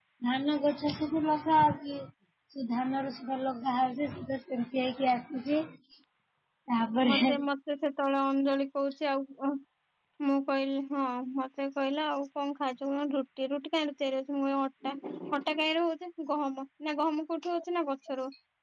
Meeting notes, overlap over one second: none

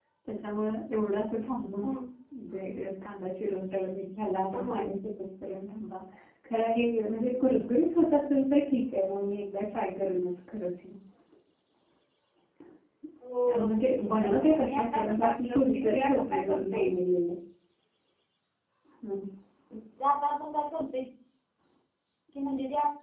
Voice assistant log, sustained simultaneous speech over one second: present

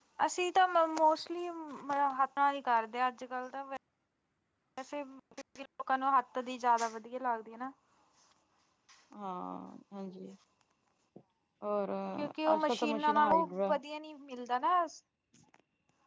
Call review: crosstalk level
present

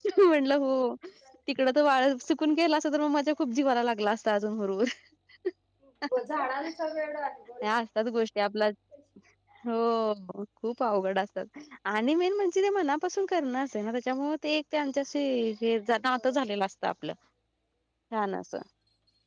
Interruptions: none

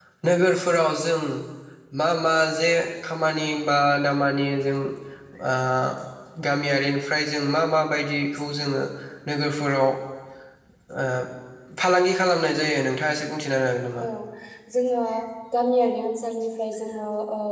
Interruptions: none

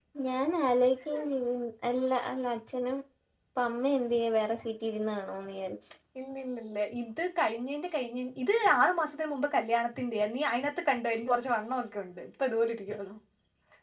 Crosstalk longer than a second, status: none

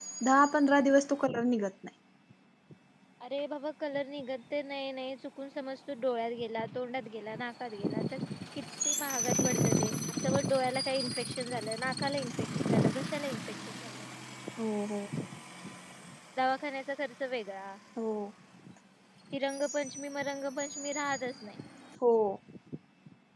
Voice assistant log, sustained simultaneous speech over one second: none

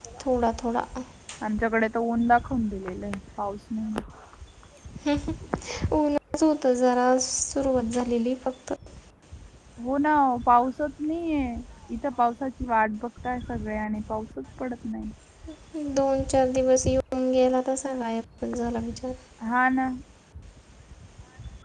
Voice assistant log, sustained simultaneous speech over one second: none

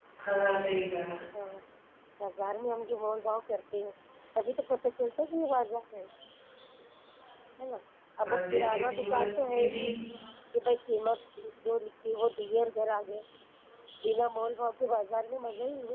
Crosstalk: present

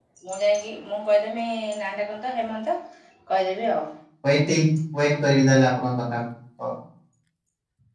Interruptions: none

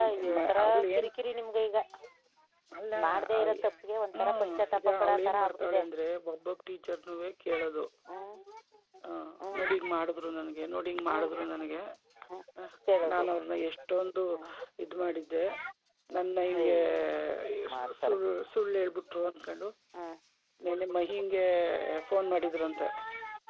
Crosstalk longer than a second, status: present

